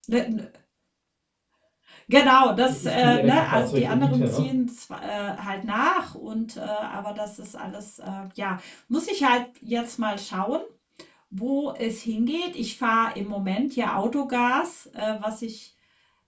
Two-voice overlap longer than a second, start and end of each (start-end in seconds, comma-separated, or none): 2.7-4.5